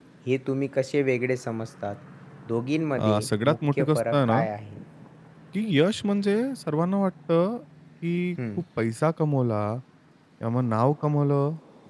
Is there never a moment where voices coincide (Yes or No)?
No